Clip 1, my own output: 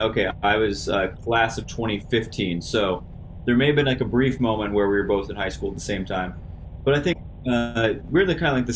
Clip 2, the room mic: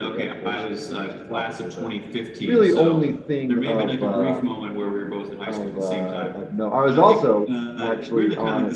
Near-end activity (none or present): present